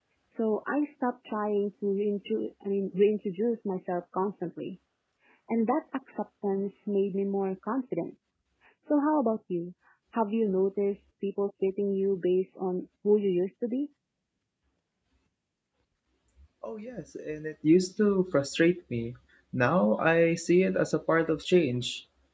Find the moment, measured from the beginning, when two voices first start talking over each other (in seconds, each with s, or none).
none